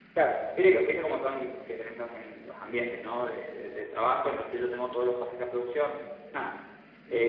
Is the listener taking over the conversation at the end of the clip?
No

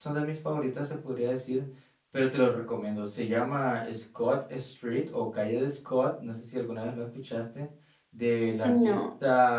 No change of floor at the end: Yes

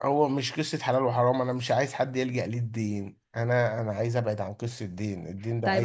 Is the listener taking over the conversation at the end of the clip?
Yes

